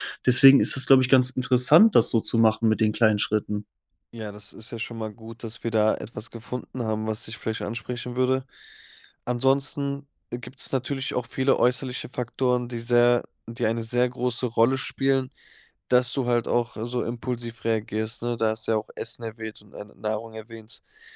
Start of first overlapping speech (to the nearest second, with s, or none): none